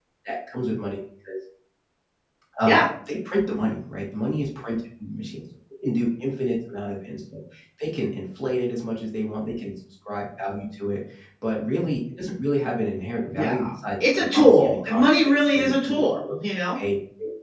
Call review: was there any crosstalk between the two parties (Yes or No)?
Yes